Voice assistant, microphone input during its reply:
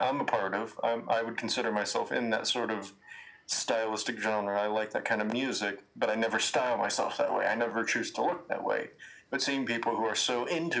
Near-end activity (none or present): none